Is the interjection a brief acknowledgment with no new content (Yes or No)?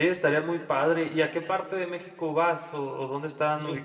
No